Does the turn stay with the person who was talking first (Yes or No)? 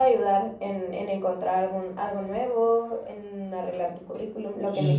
No